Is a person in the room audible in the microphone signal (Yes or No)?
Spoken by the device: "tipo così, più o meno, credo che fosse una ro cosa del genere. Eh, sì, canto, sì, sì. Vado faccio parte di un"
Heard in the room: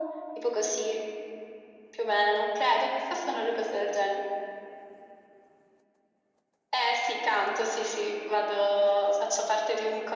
No